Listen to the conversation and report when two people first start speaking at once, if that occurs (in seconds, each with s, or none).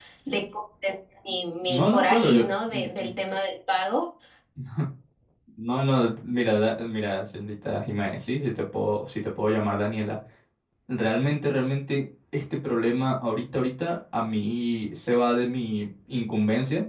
1.6 s